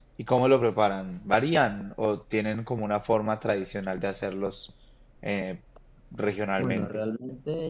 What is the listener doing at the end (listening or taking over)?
taking over